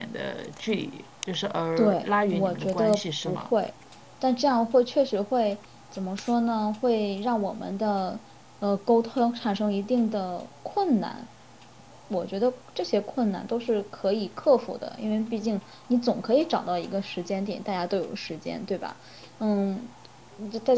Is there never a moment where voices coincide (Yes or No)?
No